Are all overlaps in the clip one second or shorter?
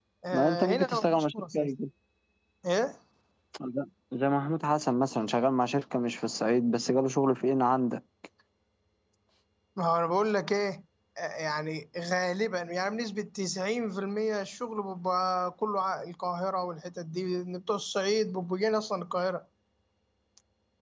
No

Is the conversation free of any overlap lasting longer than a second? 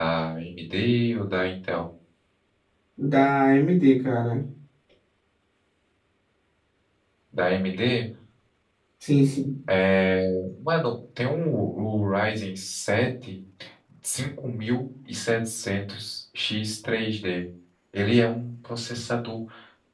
Yes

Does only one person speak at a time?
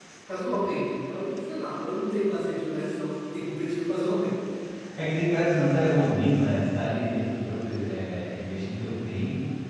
Yes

